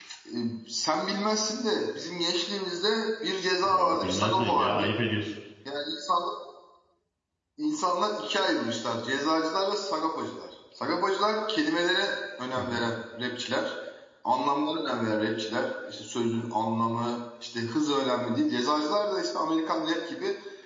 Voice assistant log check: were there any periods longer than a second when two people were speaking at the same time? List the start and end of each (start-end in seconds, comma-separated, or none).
3.7-4.9